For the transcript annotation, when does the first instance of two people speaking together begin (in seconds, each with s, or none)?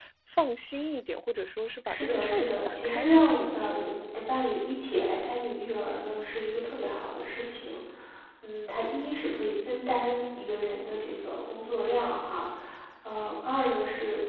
1.9 s